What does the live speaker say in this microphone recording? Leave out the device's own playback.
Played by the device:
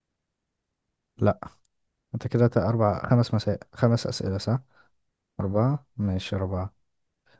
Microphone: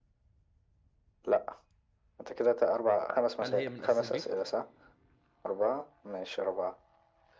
هل هي من أساس البيت

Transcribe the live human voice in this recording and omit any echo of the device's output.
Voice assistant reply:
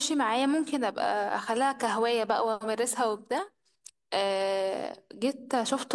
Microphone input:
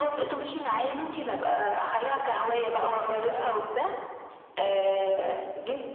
بتبقى حلوه قوي

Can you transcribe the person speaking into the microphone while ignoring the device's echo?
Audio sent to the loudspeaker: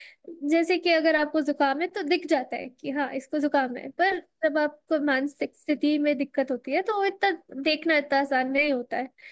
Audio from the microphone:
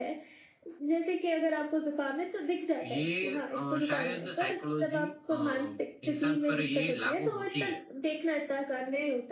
ये अ, शायद साइकोलॉजी अ, इंसान पर ये लागू होती है

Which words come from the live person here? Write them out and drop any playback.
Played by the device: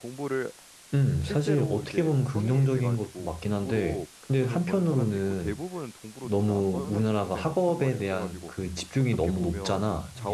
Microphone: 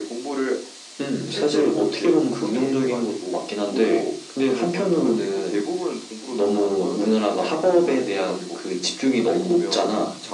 none

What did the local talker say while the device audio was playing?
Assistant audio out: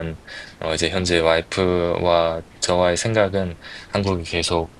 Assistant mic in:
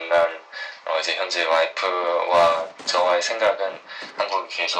none

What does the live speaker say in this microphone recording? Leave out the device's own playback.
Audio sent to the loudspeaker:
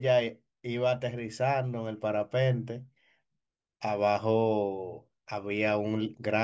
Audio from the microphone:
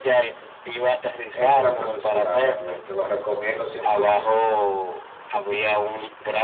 Es una preciosura realmente, lo recomiendo cien por ciento

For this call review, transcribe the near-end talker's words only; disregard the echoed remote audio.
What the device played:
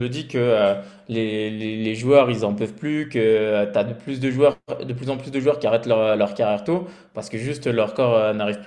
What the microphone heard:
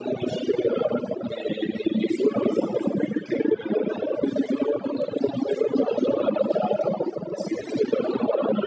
none

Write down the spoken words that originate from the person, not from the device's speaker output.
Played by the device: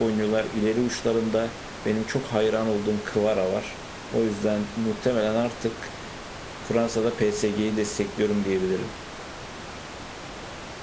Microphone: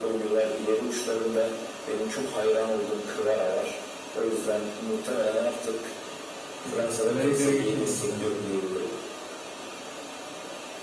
Peki La Liga'ya geçelim istersen.

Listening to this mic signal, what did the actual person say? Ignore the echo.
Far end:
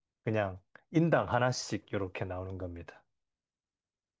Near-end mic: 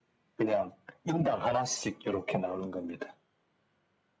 none

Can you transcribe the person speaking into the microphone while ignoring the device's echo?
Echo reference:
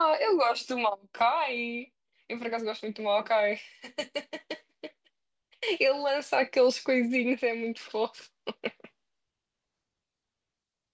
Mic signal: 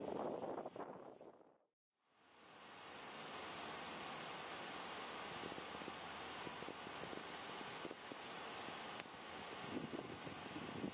none

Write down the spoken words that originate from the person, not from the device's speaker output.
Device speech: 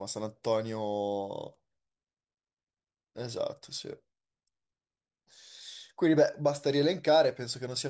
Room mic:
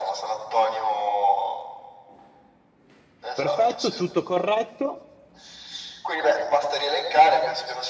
Perfetto, tutto corretto.

